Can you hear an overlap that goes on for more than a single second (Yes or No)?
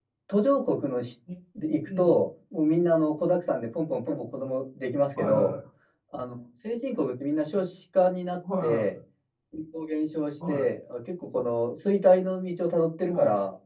No